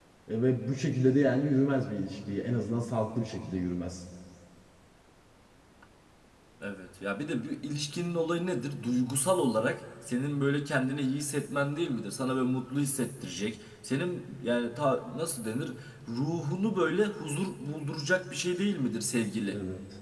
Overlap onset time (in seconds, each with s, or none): none